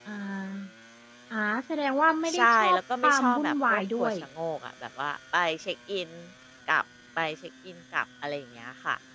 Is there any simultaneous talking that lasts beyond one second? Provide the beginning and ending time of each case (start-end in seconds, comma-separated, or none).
2.3-4.1